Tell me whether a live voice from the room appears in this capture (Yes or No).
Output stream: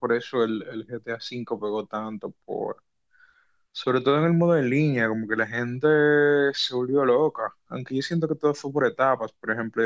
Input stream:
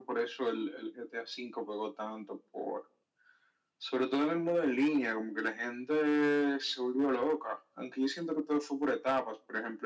No